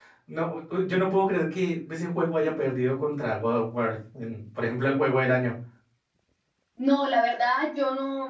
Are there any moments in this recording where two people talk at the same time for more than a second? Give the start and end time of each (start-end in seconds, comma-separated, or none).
none